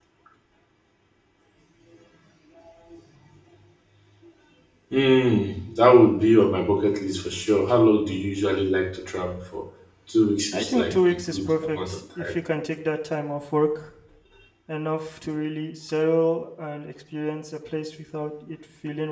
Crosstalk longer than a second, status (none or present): present